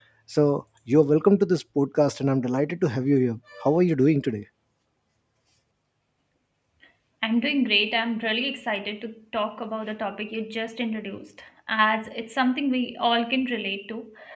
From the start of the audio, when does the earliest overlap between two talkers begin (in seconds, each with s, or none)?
none